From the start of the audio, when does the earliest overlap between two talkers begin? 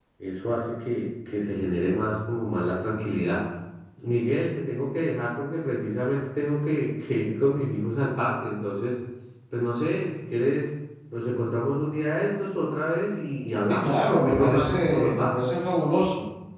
13.7 s

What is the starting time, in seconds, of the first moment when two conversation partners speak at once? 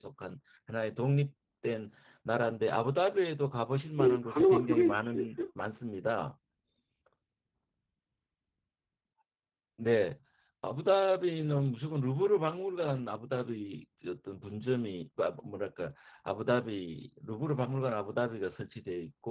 4.0 s

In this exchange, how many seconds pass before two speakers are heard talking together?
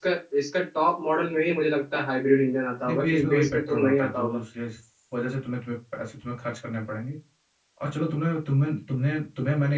2.8 s

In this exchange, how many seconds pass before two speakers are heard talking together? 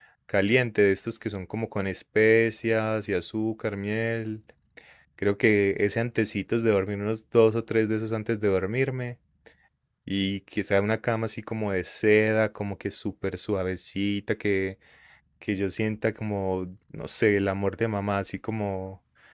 none

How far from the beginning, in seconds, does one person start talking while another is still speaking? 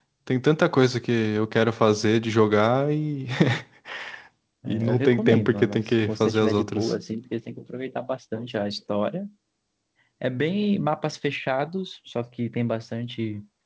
4.7 s

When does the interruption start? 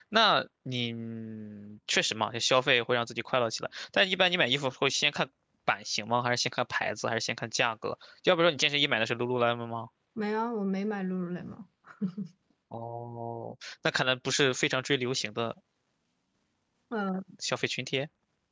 none

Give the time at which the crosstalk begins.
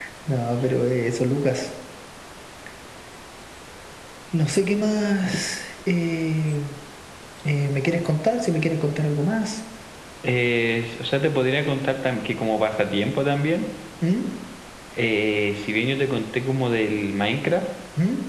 none

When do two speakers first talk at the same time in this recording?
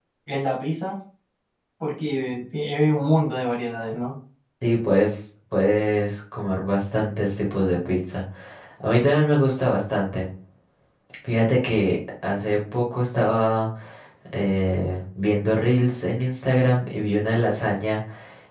none

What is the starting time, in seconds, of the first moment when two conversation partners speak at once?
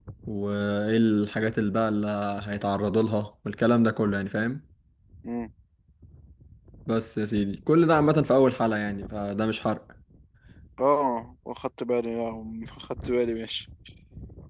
none

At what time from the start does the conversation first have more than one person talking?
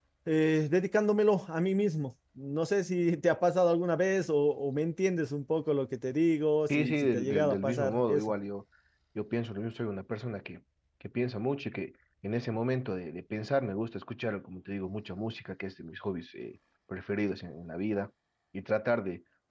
6.7 s

